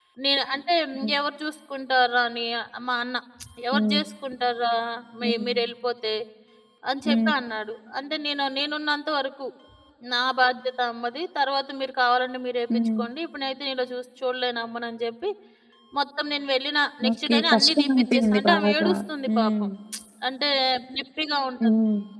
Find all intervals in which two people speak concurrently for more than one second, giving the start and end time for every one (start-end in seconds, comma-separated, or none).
17.1-18.9